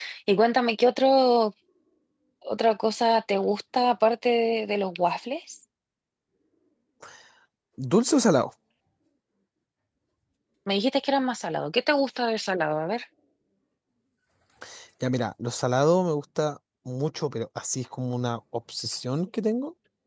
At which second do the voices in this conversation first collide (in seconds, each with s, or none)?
none